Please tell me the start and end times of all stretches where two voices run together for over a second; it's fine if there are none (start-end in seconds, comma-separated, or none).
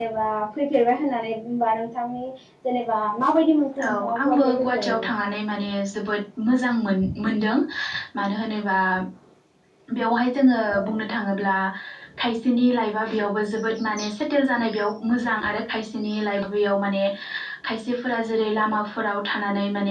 3.8-5.1